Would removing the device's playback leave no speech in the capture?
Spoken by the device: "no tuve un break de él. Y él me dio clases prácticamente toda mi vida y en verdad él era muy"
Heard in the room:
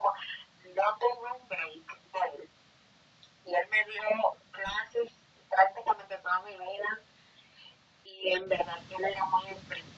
Yes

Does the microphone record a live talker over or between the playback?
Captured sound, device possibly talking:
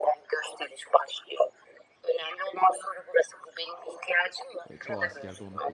Yes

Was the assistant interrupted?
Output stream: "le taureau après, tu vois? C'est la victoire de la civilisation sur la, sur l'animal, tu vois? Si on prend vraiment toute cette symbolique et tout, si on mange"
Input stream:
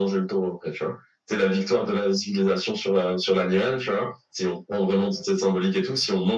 No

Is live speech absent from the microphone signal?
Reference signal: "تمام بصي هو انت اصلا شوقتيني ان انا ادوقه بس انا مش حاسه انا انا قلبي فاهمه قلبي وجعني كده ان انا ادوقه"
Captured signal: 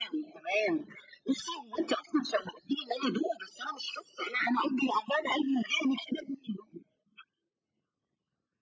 Yes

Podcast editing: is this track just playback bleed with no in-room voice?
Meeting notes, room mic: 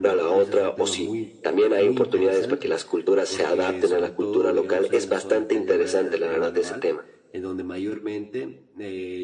No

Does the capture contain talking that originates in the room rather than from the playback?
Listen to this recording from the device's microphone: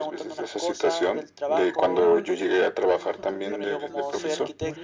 Yes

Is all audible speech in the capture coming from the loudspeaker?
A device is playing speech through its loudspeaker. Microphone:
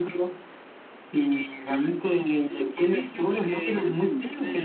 No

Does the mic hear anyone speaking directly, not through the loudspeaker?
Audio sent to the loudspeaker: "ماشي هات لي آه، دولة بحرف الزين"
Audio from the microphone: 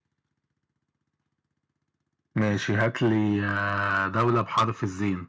No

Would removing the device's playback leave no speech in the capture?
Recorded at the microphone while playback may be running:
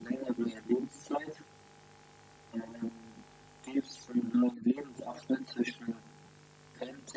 Yes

